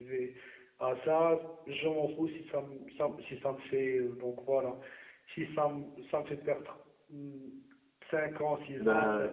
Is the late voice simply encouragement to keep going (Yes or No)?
Yes